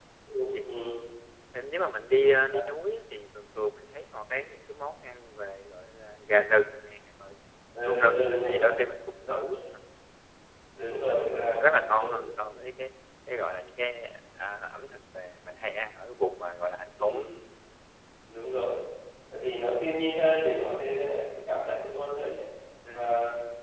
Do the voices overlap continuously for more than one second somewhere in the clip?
Yes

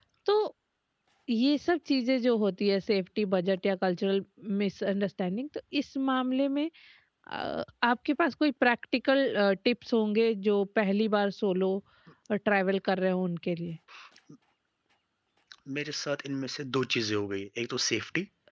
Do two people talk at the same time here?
No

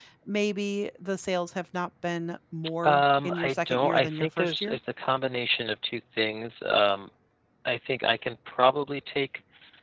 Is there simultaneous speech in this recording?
Yes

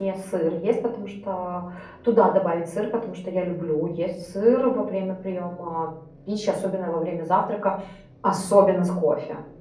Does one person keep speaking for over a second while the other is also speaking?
No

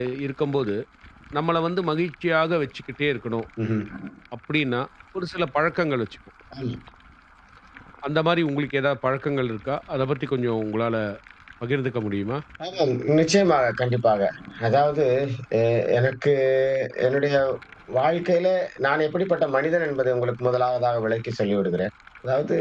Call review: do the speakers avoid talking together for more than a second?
Yes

